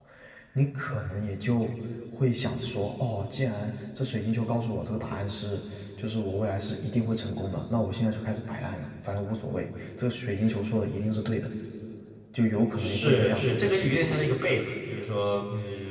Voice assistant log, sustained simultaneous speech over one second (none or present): present